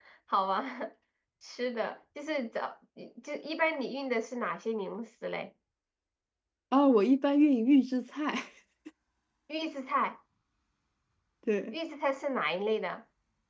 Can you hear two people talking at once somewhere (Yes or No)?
No